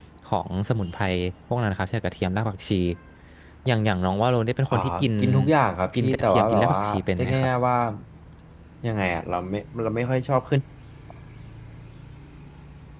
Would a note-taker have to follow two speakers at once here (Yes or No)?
Yes